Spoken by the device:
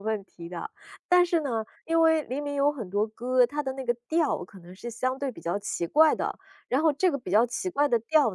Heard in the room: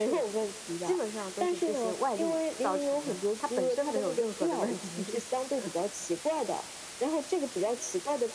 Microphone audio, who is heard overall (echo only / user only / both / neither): both